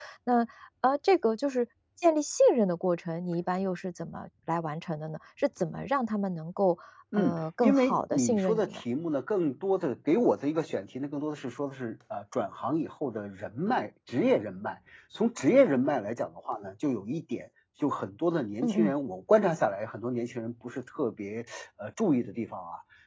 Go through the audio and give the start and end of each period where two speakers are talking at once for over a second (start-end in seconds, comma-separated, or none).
7.2-8.8